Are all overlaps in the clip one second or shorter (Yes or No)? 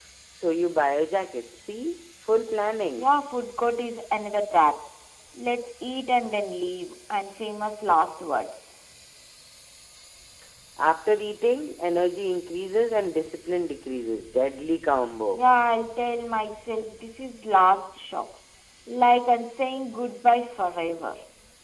Yes